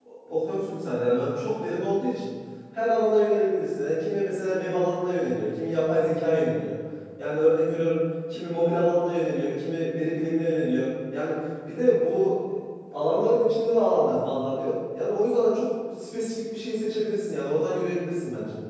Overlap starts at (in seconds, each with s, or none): none